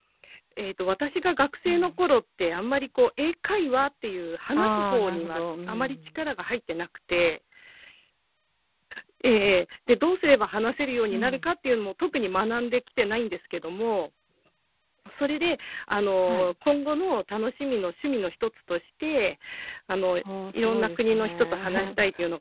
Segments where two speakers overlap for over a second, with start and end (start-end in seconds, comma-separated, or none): 4.5-6.0, 20.5-21.9